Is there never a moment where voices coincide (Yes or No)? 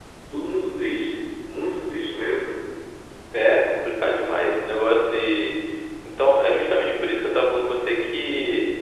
Yes